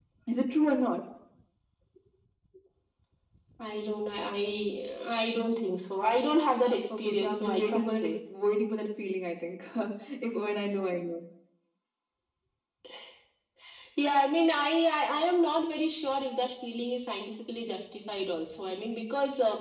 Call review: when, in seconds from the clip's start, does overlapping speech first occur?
7 s

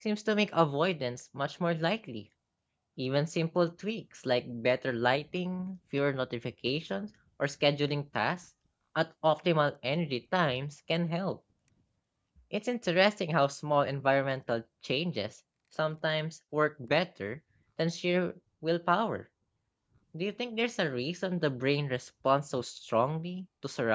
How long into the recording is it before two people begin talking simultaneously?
none

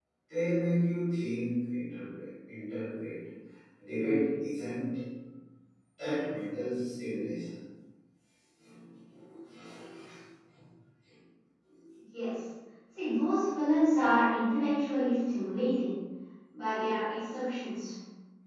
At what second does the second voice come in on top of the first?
none

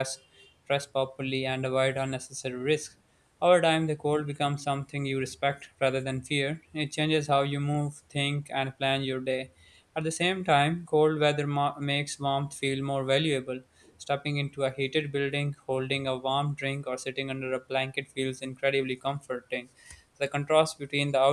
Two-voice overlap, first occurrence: none

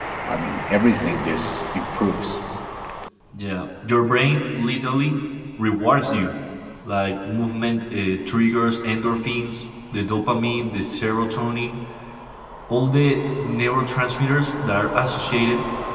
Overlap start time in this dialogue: none

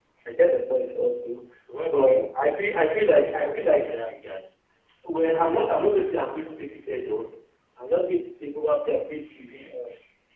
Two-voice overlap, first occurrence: 2 s

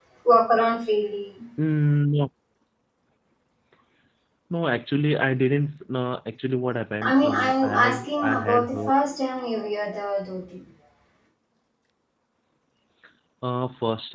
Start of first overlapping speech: 7 s

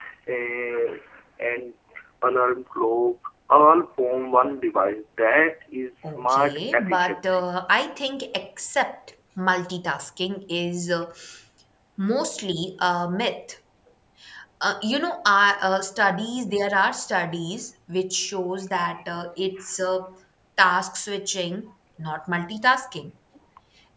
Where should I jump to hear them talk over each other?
6 s

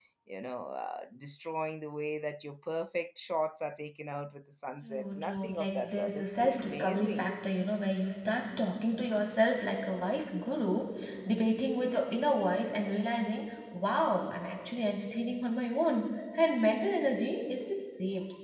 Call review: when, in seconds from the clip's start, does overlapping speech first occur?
5 s

